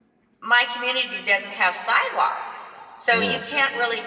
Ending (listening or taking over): listening